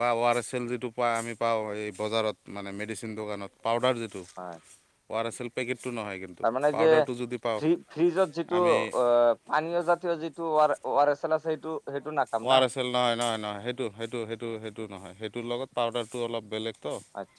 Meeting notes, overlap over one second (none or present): none